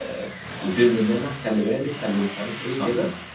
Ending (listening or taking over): listening